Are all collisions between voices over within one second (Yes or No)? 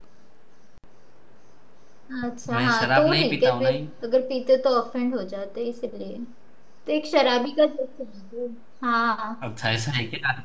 No